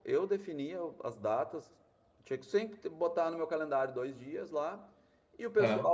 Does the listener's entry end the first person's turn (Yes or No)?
No